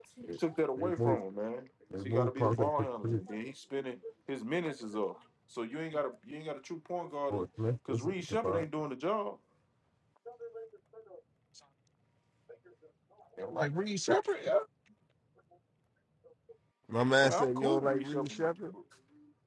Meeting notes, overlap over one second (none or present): present